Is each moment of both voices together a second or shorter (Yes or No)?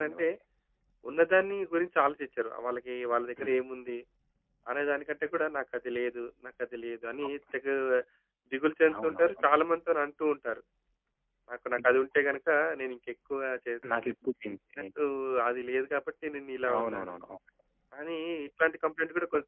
Yes